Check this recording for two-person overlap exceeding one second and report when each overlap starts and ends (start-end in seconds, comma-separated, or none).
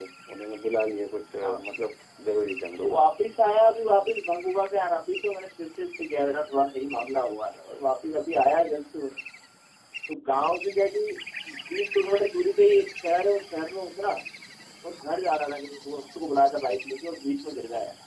none